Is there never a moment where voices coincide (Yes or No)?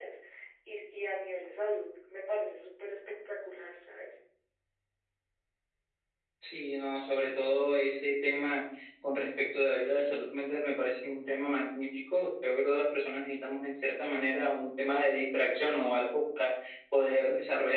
Yes